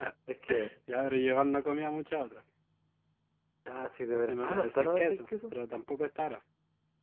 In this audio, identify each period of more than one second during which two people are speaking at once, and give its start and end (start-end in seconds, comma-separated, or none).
4.1-5.5